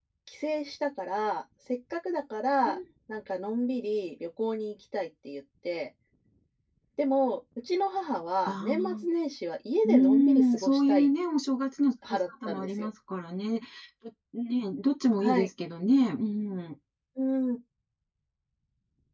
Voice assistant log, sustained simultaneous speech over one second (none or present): present